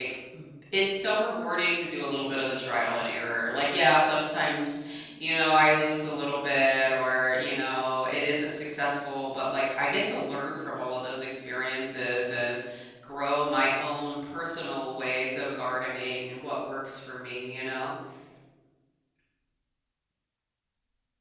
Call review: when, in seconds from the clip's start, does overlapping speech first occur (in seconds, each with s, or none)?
none